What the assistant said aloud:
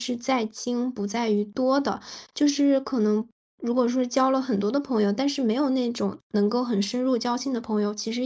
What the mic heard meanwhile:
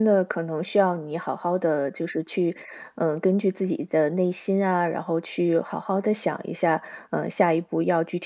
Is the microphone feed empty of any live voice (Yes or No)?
No